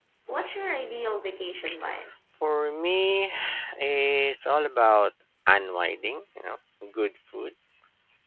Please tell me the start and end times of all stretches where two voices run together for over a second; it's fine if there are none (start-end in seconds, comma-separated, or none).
none